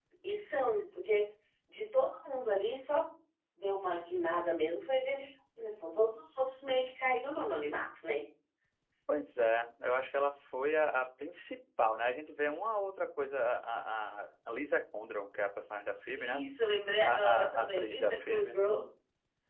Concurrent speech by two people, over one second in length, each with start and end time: 17.1-18.6

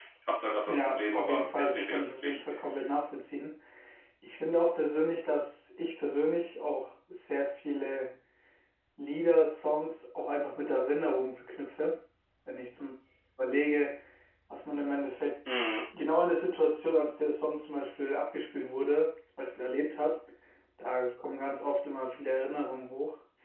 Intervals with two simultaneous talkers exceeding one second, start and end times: 0.7-2.4

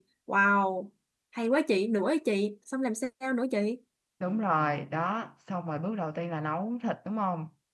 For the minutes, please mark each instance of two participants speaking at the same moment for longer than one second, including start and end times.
none

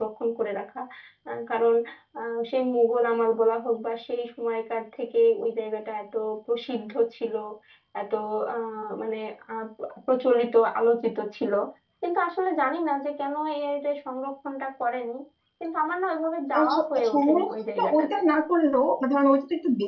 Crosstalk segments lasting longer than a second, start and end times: 16.6-18.1

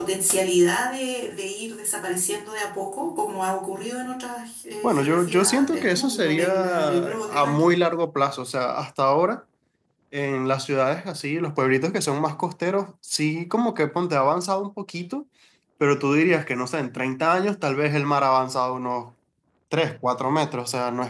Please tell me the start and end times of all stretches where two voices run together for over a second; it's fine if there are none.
4.8-7.7

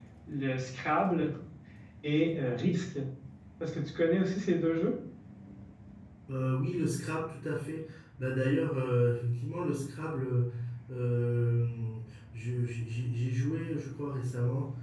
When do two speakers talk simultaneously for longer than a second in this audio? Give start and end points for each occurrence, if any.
none

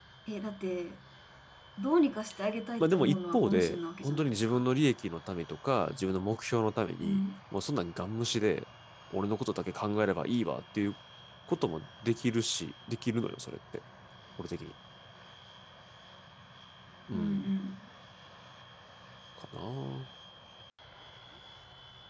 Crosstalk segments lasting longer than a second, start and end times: 2.8-4.6

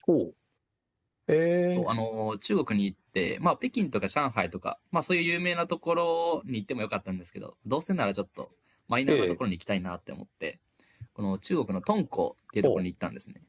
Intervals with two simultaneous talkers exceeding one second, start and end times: none

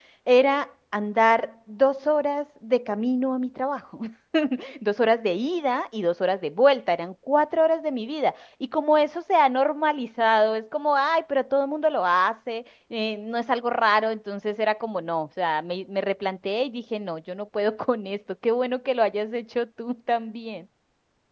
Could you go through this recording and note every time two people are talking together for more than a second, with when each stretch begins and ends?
none

